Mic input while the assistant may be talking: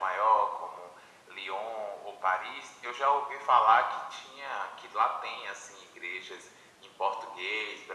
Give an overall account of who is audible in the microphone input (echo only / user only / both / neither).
echo only